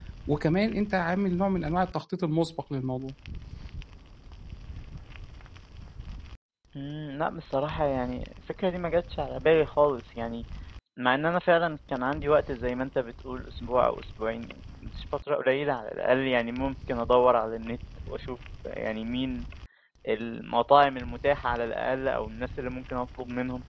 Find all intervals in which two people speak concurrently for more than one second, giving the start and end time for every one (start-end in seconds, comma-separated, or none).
none